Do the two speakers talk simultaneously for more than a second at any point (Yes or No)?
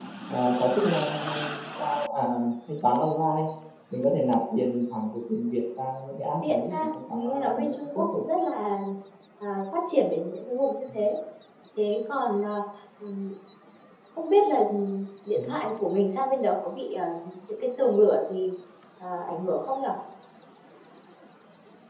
Yes